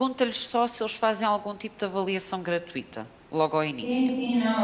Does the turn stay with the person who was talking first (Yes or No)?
No